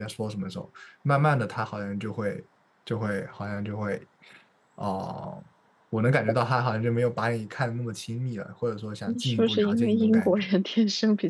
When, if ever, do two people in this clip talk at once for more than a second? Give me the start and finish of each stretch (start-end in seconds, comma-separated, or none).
9.1-10.5